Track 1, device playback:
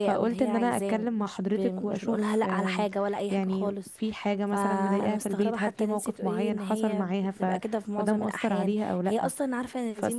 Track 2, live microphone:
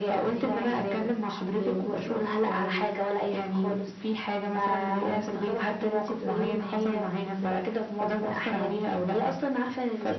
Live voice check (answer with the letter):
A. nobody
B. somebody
A